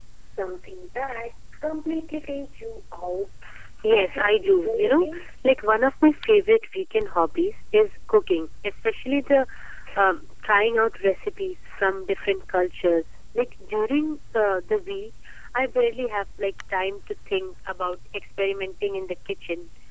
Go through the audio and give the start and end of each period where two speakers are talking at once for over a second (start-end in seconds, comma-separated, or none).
3.9-5.2